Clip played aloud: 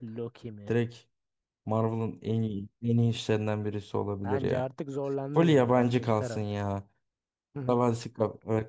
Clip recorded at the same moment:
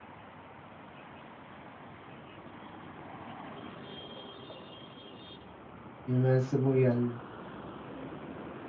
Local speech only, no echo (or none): Invincible geldi.